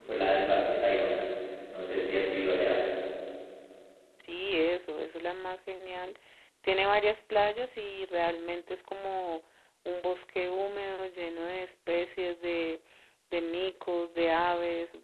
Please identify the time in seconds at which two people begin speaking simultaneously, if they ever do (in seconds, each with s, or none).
none